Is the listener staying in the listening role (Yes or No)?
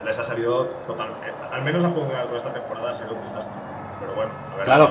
No